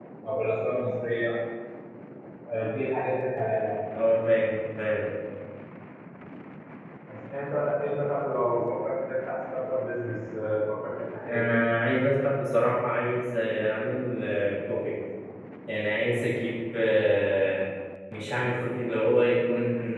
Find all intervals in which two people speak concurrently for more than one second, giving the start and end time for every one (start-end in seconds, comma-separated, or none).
none